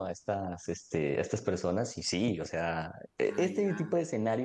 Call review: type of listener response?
listening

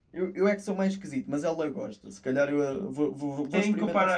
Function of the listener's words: taking over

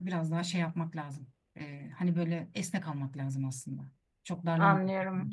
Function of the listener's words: taking over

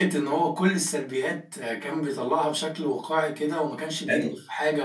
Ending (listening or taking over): listening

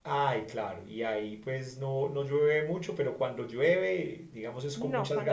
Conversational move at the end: taking over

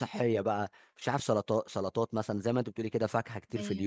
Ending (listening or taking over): listening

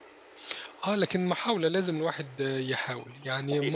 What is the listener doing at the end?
taking over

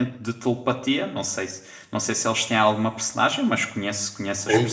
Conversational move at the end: taking over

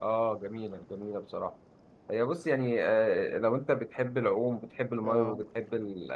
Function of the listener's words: listening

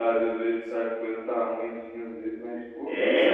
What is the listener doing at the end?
taking over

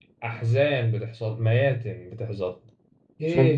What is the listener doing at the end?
listening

